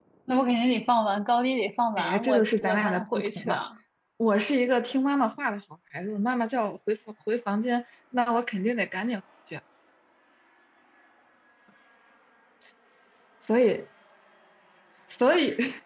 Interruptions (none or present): present